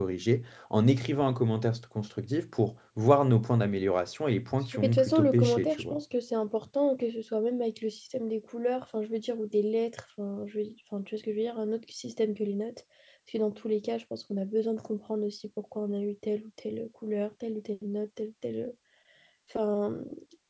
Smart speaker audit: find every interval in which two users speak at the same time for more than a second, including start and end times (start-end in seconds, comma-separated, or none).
4.7-6.0